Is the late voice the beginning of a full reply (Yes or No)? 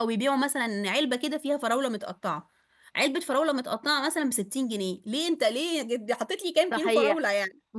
Yes